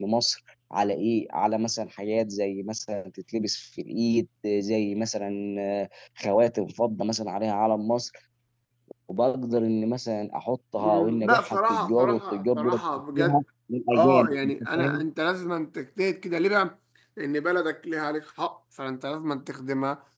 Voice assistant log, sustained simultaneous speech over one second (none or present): present